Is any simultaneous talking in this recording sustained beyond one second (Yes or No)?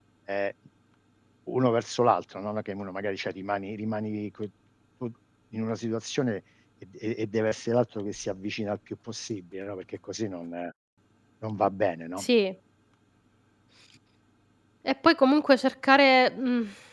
No